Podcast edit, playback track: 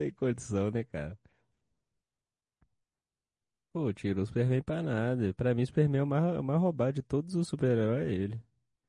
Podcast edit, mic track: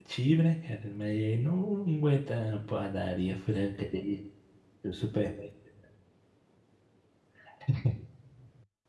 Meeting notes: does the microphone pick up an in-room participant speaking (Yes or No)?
Yes